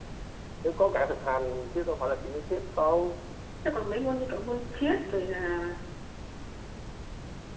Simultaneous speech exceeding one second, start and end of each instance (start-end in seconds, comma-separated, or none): none